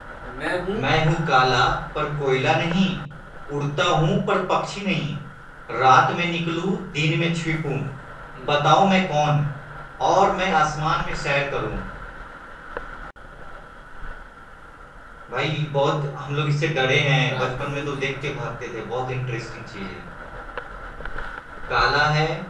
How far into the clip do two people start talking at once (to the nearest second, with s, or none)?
17 s